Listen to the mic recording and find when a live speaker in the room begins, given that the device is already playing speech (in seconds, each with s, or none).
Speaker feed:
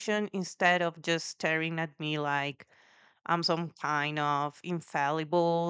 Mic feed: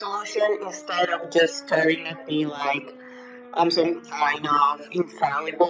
none